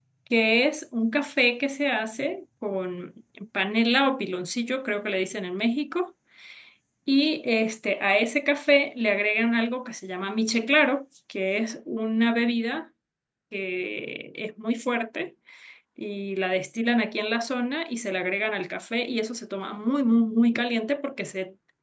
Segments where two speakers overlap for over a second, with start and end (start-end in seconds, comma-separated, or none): none